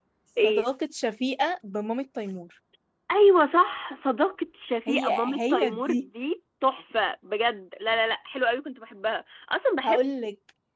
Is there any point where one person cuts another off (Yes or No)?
Yes